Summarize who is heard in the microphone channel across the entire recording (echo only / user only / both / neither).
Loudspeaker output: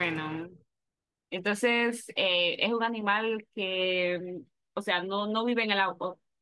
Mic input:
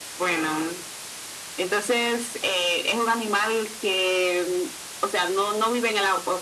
echo only